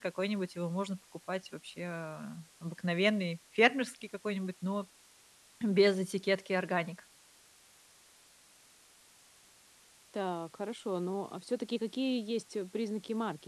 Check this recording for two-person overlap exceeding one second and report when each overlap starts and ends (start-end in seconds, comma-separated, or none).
none